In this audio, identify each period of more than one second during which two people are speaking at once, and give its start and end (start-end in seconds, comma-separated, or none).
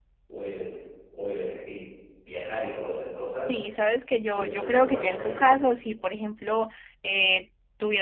4.3-5.6